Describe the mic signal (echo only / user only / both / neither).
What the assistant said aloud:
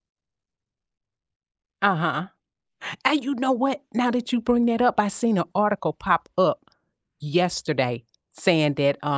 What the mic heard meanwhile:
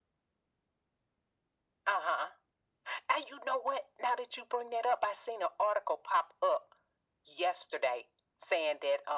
echo only